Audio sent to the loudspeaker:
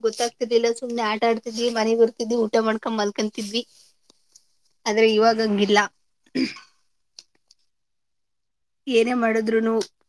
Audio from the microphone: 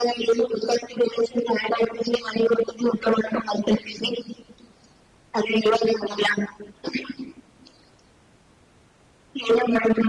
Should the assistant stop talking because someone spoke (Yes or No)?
No